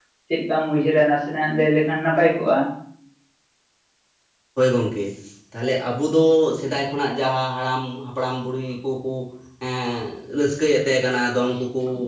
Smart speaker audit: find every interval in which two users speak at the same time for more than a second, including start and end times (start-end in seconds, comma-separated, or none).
none